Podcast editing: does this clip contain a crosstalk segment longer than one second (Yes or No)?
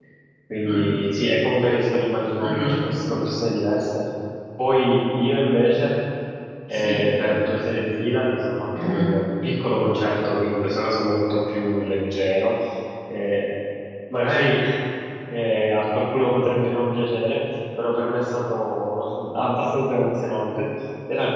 No